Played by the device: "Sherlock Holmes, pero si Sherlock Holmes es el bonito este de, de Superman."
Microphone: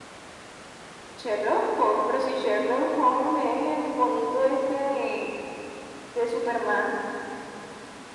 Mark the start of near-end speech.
none

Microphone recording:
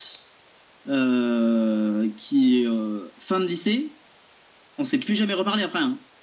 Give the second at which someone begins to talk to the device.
none

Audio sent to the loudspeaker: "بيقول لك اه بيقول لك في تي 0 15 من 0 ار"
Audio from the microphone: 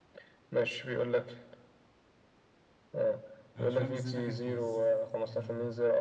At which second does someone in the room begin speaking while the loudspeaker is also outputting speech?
3.5 s

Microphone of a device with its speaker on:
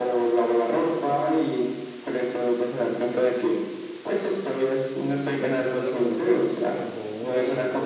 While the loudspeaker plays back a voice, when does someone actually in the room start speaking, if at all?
5.4 s

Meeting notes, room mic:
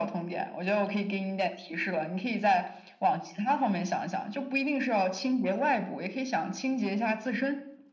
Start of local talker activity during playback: none

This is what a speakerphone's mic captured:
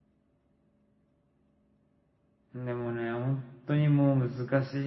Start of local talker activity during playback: 2.5 s

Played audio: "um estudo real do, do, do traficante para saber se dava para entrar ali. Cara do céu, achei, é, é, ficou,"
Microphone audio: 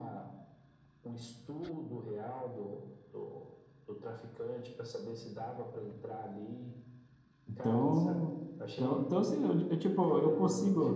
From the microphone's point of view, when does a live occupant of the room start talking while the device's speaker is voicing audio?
7.5 s

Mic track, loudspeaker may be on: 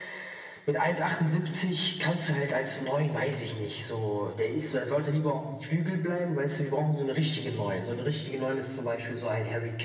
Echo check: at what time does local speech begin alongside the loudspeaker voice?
none

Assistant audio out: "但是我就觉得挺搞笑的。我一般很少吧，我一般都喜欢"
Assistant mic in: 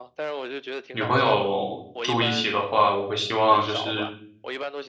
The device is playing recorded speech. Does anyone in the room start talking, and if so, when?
0.9 s

